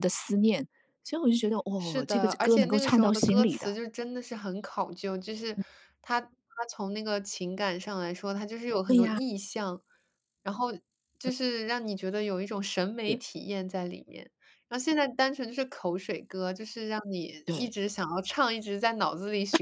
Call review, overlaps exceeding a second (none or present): present